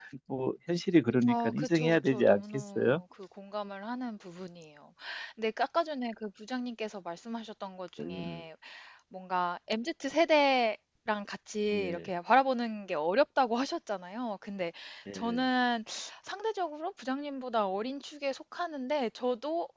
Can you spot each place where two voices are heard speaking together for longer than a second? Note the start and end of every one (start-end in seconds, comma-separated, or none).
1.2-3.0